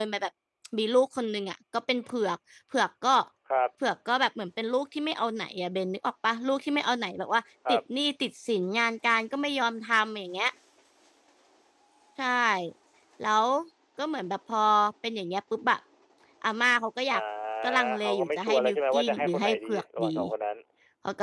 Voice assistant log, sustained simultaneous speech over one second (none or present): present